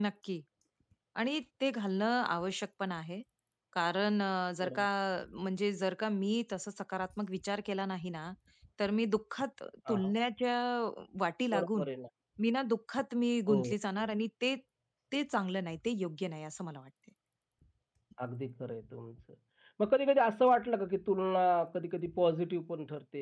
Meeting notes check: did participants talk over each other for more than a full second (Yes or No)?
No